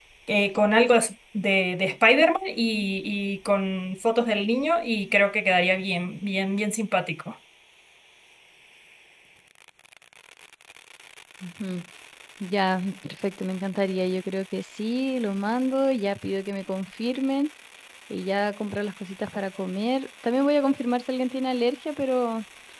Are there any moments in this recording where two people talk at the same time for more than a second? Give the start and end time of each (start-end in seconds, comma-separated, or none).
none